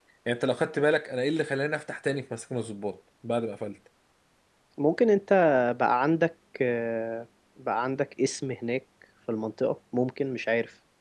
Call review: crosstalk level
none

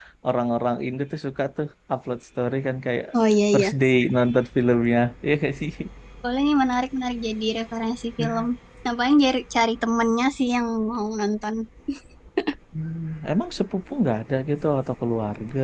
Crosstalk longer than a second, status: none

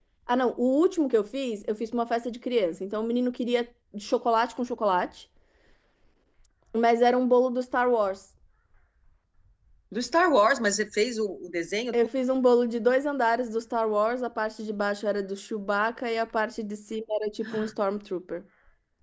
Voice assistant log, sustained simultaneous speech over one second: none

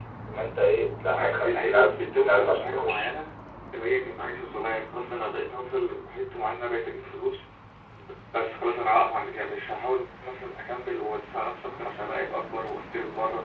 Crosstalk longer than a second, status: present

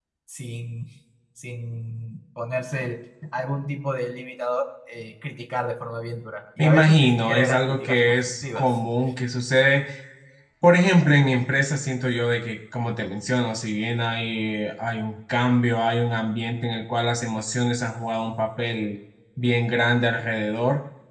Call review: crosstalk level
present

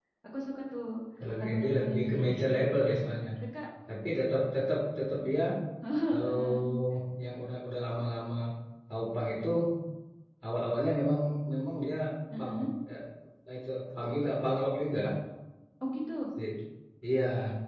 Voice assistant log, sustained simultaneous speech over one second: present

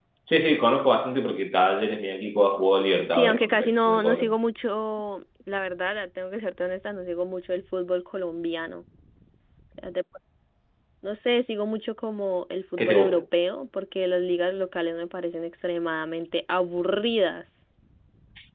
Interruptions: present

